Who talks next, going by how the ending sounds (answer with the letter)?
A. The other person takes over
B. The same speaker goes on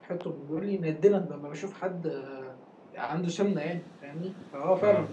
B